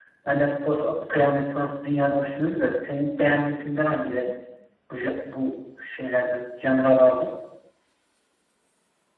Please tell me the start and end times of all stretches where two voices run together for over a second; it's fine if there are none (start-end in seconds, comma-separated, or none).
none